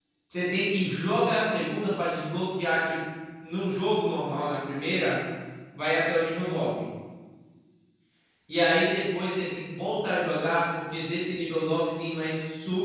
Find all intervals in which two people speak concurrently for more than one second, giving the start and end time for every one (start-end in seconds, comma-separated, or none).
none